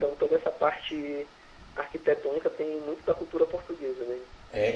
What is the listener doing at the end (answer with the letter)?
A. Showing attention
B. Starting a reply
B